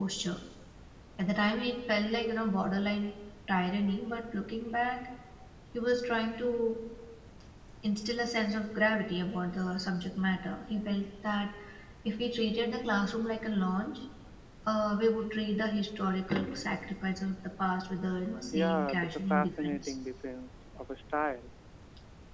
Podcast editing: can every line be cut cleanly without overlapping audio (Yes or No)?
No